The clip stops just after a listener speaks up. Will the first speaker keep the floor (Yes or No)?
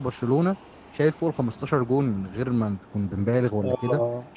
Yes